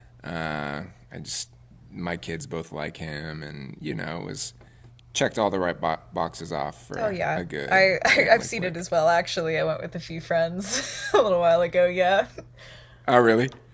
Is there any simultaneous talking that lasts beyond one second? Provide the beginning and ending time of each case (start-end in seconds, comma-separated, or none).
7.0-8.7